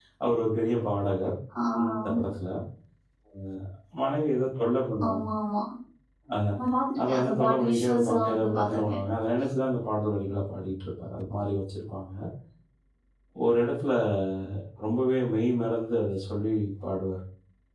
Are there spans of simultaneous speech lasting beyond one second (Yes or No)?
Yes